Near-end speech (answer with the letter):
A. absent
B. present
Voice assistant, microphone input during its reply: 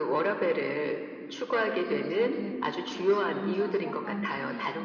B